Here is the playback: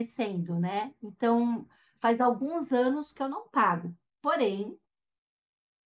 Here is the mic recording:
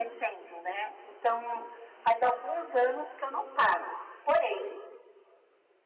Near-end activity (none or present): none